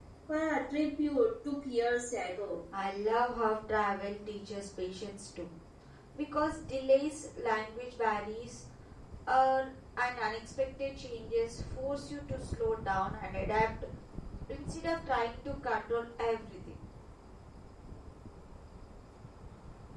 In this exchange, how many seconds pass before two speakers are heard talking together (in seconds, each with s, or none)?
none